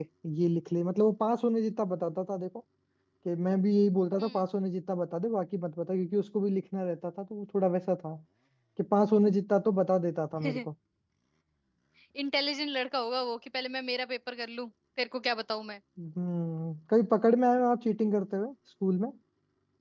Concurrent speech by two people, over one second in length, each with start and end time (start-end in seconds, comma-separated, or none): none